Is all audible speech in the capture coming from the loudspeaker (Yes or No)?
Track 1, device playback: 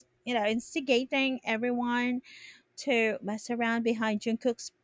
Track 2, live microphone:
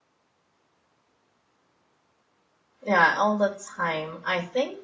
No